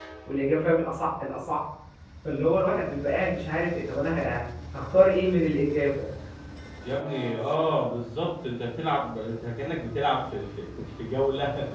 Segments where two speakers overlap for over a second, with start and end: none

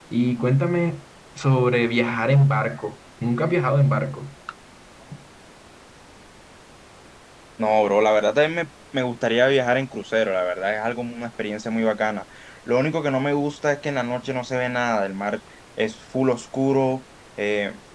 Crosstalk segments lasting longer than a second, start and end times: none

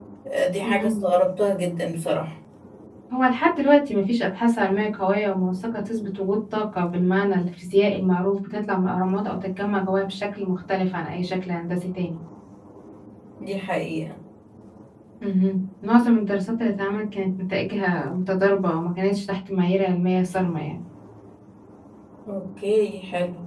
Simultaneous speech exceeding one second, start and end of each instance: none

